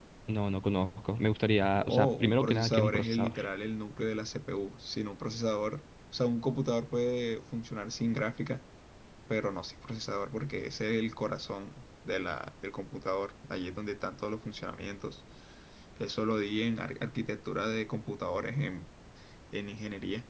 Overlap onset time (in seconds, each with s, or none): 1.8 s